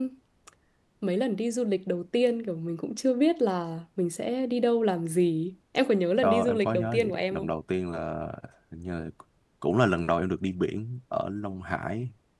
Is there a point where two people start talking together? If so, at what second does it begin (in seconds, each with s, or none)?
6.2 s